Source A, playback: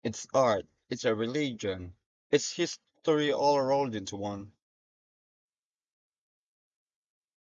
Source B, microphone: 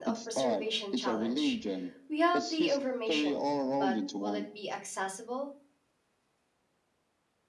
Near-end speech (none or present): present